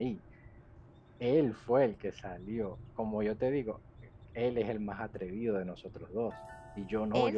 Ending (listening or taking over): listening